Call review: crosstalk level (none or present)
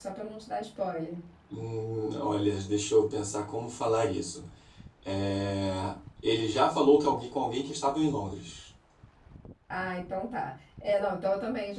none